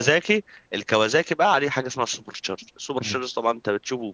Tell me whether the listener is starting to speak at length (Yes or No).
No